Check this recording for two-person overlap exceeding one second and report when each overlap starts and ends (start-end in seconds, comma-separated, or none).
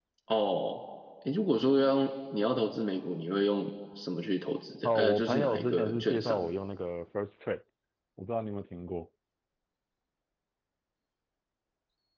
4.8-6.5